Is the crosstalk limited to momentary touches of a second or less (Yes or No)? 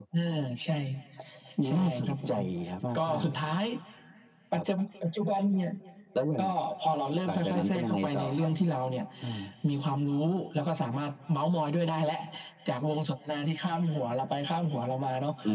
No